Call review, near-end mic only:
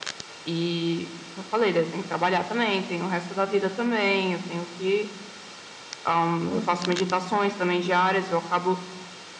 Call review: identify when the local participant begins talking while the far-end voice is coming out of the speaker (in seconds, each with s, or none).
6.5 s